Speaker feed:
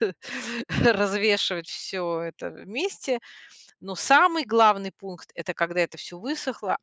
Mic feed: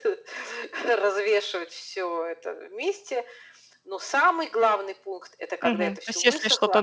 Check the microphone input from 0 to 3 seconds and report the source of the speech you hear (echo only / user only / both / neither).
echo only